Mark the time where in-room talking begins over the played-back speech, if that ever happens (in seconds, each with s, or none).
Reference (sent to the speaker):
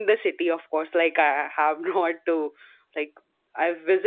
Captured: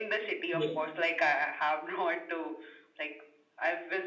0.5 s